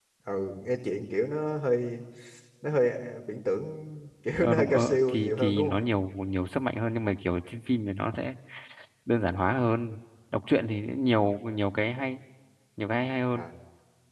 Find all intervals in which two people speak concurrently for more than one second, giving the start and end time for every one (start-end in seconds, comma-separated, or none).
4.4-5.8